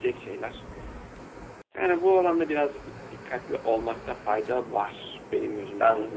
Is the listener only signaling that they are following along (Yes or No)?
No